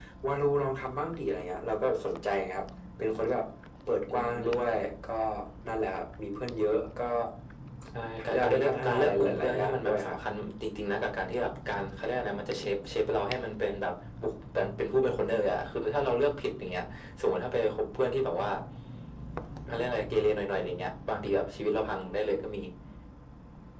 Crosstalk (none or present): present